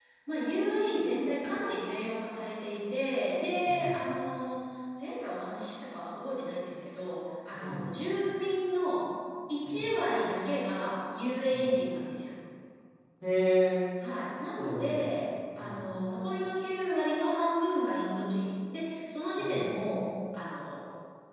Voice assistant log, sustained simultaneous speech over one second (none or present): none